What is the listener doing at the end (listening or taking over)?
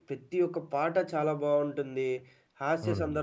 listening